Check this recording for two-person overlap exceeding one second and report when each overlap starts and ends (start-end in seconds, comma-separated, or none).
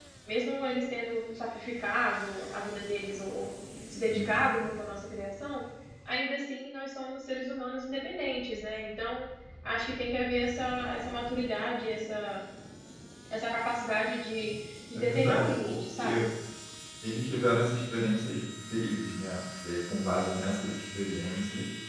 14.9-16.2